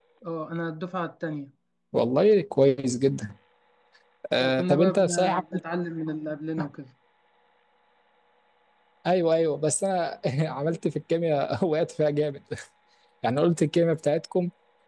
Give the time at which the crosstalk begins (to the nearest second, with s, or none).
4 s